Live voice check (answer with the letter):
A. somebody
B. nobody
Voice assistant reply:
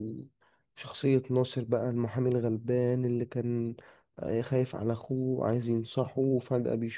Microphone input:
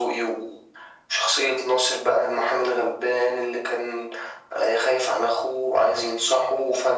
B